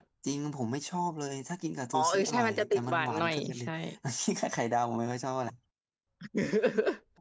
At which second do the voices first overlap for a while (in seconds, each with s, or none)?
1.9 s